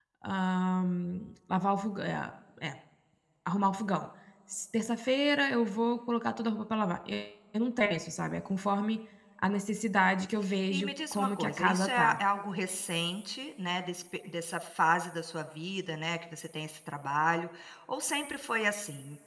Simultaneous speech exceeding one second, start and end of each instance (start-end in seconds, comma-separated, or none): 10.7-12.2